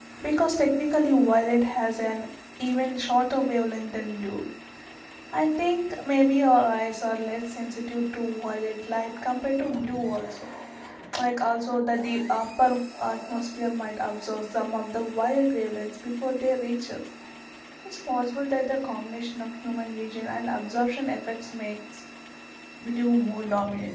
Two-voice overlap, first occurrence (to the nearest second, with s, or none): none